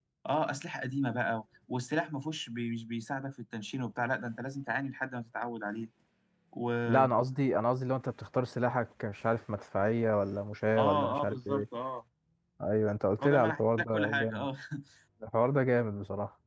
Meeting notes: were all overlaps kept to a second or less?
No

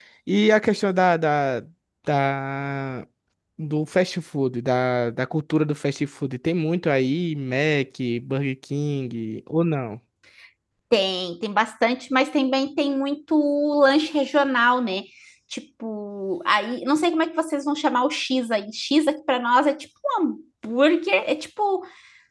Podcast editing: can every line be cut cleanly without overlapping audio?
Yes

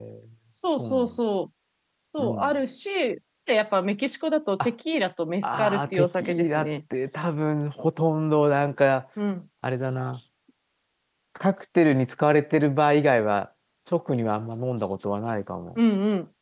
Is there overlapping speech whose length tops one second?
Yes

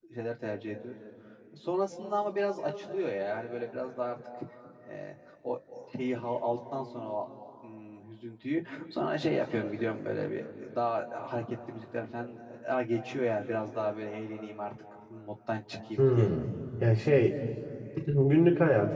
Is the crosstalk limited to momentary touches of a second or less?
Yes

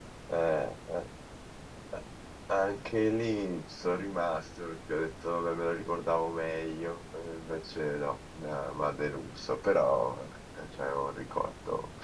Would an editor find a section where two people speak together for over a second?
No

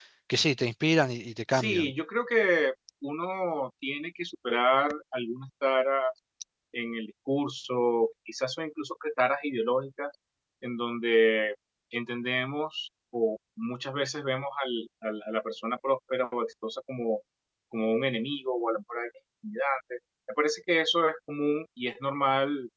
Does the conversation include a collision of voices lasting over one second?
No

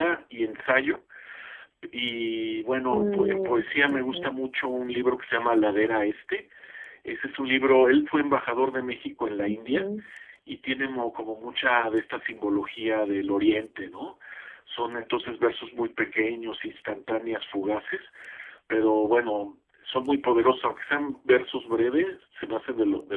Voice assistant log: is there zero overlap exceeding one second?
No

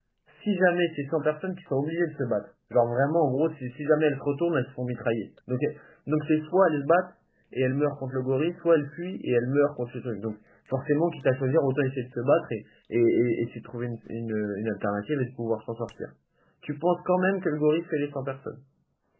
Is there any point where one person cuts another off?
No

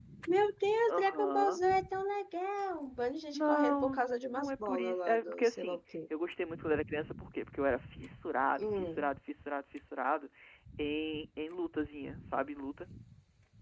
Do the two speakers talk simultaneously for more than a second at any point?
Yes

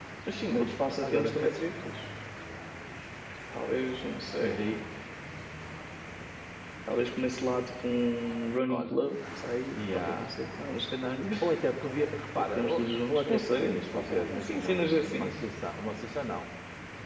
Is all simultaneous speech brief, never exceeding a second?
No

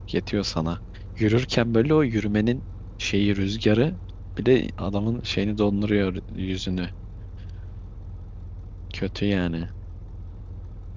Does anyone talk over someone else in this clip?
No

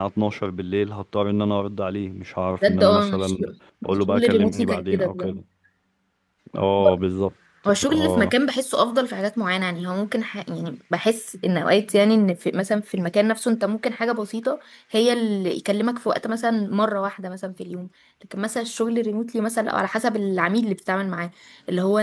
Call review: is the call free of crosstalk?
No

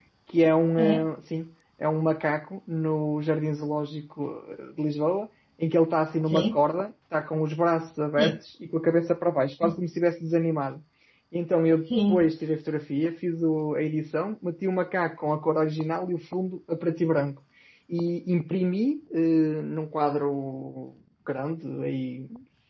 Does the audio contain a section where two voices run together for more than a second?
No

